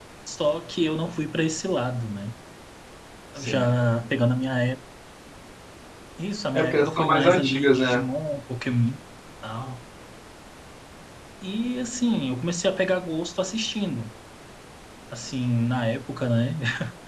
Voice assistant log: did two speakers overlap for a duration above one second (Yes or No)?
Yes